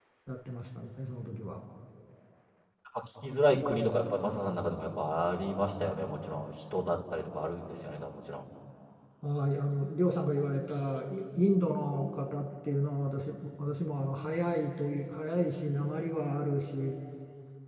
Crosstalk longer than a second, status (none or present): none